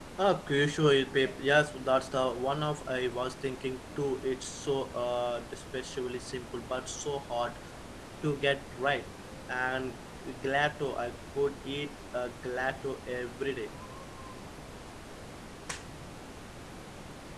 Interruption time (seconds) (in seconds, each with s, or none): none